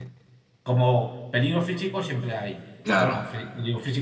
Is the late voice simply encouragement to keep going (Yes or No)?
Yes